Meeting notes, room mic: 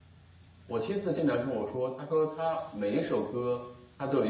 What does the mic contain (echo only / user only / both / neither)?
user only